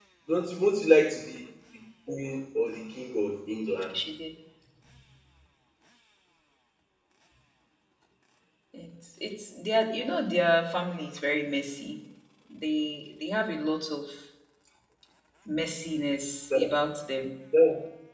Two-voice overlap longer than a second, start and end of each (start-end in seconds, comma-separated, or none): none